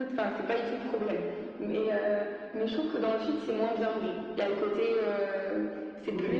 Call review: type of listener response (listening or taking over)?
taking over